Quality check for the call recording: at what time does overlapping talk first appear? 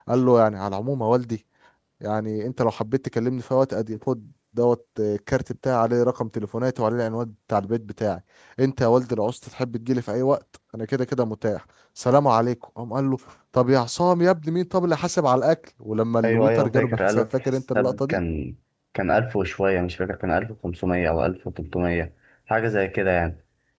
16.2 s

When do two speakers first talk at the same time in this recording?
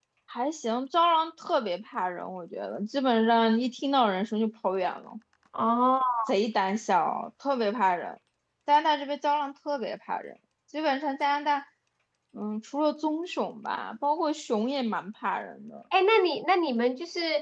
none

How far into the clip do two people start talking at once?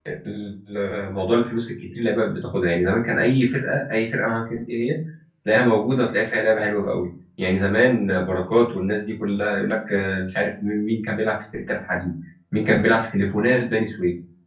none

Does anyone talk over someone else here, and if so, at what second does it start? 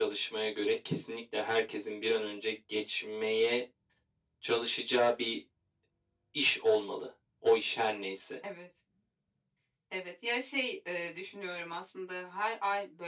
none

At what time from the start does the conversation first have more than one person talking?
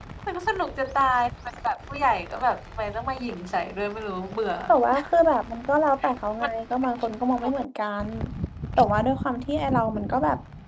none

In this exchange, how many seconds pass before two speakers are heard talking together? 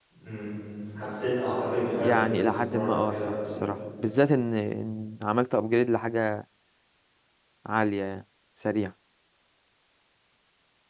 2.0 s

